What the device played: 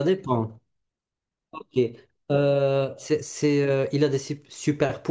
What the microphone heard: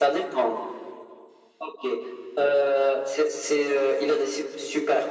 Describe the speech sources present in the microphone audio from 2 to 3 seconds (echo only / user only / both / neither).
echo only